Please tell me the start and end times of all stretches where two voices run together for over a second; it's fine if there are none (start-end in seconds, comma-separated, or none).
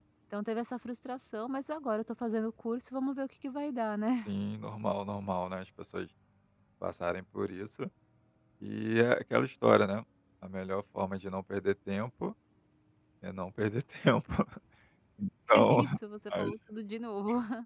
none